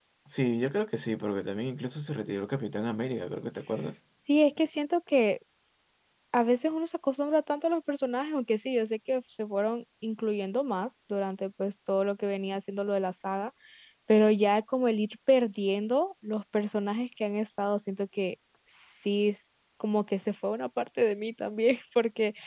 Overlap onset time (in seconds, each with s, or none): none